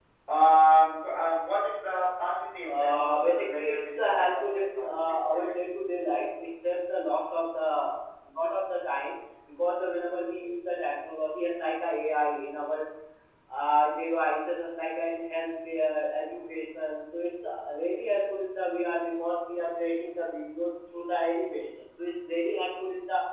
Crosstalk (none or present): present